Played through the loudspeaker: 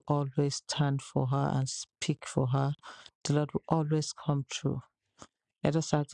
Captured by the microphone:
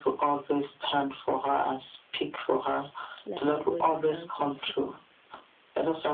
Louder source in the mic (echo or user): echo